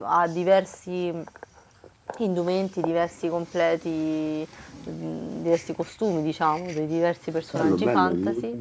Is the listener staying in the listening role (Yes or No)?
No